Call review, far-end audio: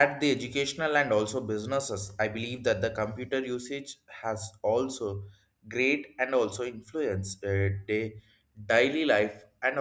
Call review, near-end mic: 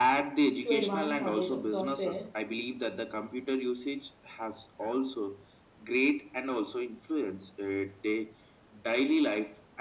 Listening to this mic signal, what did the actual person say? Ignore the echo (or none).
to advanced knowledge of software,